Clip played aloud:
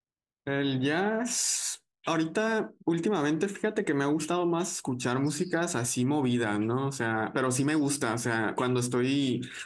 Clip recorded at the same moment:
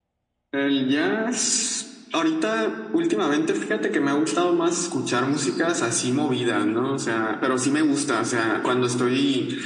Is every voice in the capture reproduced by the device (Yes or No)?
Yes